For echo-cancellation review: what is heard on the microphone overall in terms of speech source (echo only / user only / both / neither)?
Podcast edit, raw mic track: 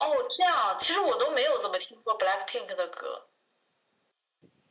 echo only